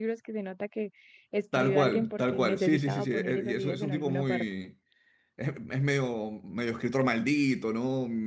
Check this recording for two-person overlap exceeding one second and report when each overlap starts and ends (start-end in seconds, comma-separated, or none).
1.5-4.4